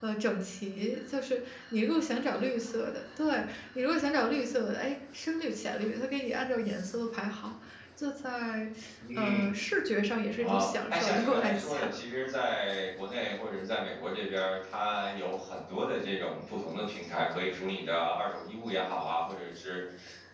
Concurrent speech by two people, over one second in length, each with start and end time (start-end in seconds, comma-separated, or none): 10.4-11.7